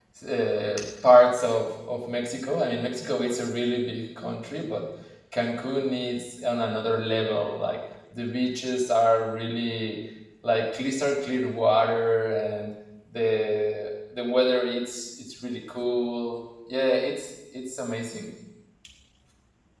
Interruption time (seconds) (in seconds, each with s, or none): none